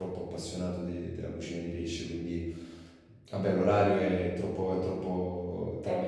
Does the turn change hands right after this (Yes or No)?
No